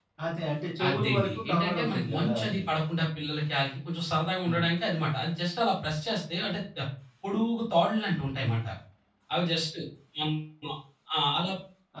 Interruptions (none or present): present